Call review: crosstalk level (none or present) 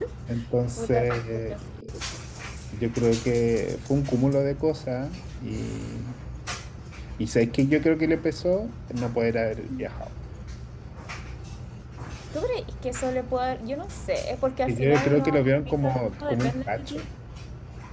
present